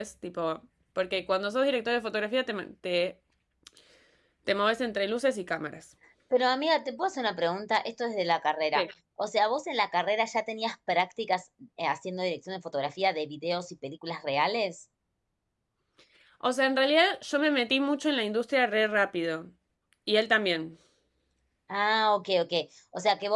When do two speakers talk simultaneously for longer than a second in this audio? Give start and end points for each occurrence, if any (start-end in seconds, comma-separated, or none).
none